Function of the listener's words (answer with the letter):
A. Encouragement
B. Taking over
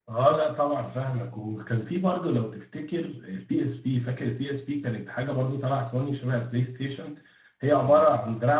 A